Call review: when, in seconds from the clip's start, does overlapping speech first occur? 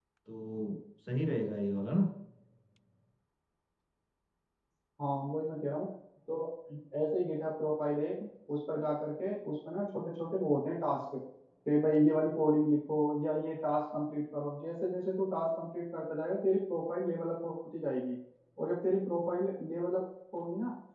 none

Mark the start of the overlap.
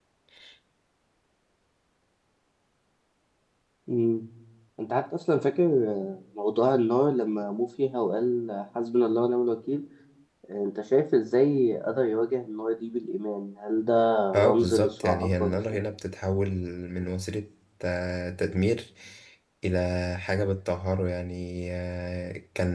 14.3 s

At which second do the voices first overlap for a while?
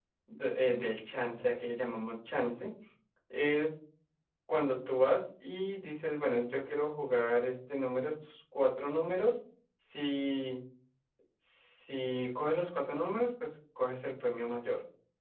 none

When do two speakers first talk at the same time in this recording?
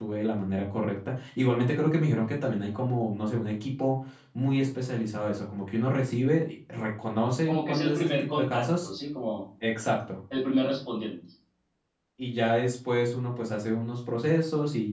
7.5 s

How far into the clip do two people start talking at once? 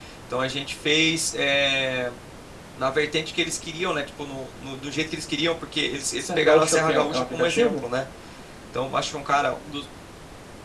6.2 s

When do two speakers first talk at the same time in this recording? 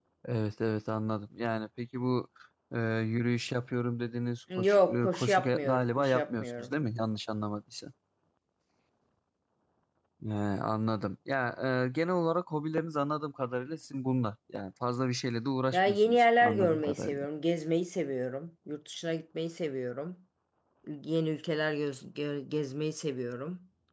4.6 s

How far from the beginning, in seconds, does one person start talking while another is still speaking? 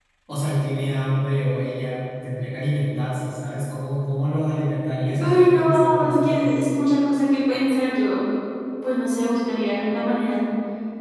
5.2 s

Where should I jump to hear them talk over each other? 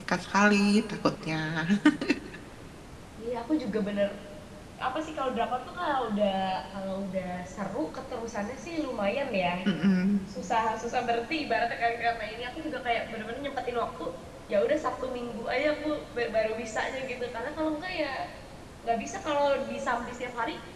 none

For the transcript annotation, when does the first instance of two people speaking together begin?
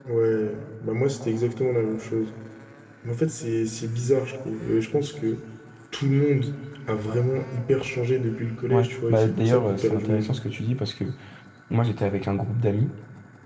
8.7 s

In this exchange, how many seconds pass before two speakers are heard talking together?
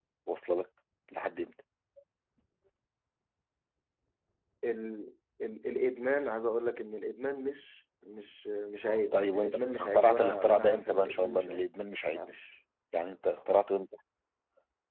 9.1 s

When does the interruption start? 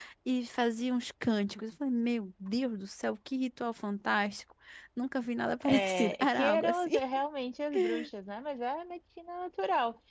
5.6 s

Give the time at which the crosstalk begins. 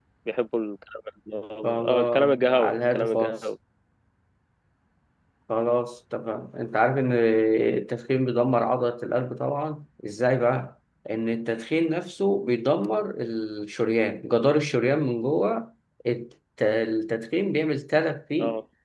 1.9 s

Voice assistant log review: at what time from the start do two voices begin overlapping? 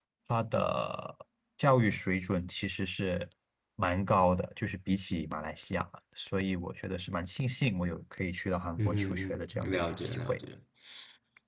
8.8 s

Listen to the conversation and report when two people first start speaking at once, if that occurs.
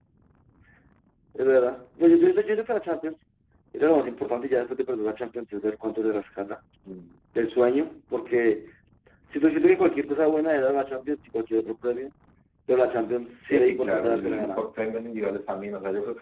13.4 s

